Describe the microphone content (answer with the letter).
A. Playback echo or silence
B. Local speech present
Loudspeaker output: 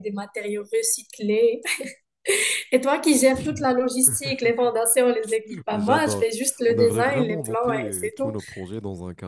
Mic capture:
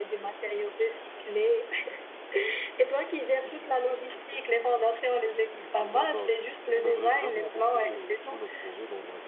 A